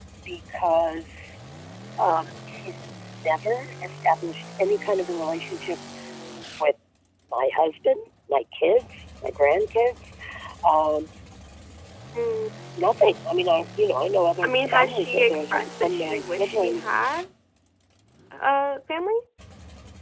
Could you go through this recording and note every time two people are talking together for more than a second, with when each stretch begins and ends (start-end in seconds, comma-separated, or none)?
14.4-16.8